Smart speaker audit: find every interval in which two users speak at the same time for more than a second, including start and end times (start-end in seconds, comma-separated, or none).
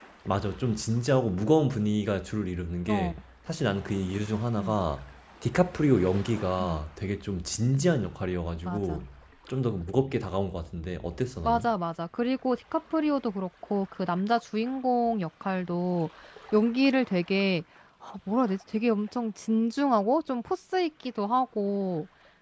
none